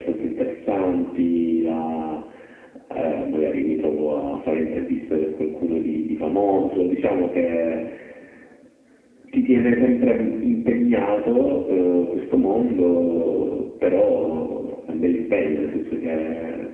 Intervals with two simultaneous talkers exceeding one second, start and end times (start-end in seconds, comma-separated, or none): none